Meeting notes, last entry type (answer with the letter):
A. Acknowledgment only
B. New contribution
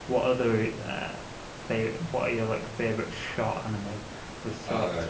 A